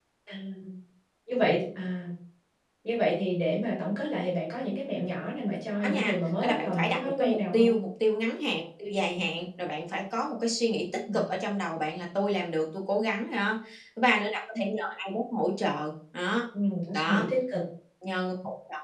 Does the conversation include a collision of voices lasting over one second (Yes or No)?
Yes